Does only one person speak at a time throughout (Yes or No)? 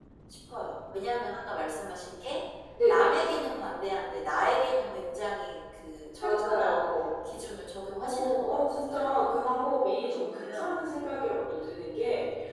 No